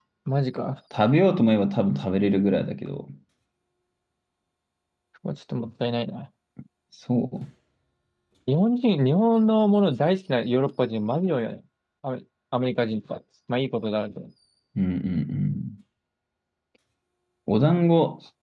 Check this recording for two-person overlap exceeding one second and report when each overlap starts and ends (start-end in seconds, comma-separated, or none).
none